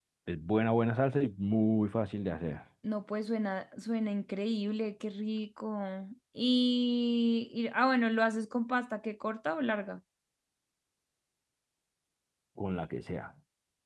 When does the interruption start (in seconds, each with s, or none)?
none